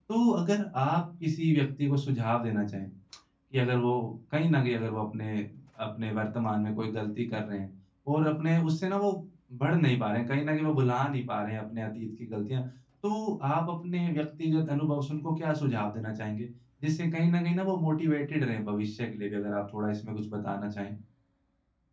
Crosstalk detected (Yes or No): No